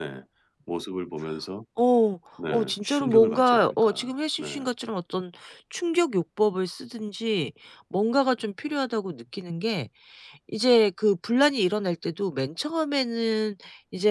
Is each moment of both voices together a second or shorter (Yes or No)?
No